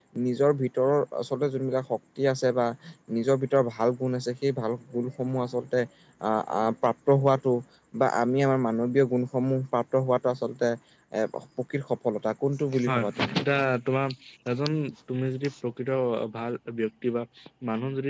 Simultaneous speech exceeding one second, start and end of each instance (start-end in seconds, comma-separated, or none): none